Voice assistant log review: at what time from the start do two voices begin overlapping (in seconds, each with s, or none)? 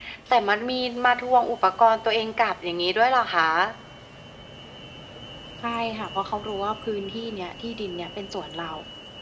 none